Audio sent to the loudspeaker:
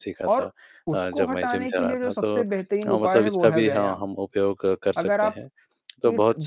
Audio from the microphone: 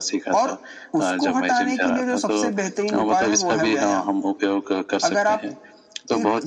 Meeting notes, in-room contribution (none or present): none